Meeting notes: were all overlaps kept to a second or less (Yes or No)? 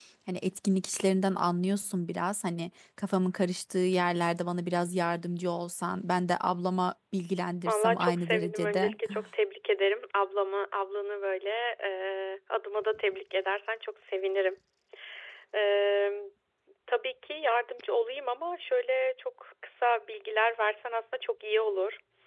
No